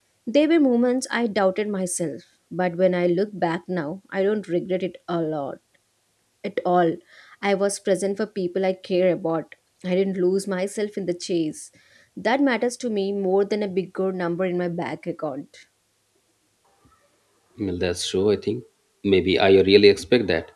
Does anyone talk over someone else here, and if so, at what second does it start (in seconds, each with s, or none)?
none